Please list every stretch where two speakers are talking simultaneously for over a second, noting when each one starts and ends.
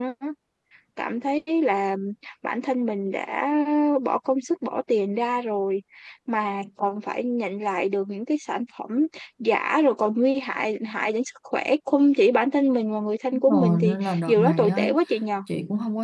13.5-14.9

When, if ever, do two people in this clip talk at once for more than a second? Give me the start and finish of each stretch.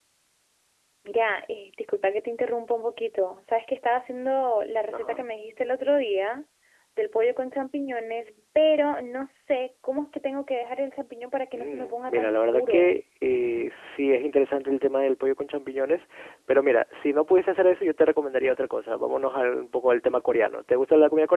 11.6-12.9

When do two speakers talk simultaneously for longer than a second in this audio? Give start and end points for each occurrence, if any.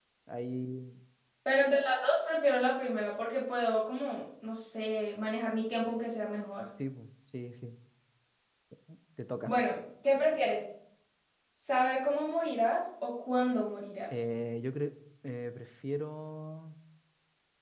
none

